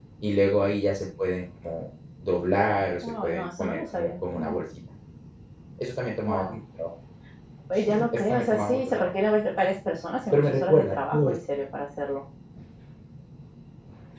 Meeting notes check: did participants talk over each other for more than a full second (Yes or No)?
Yes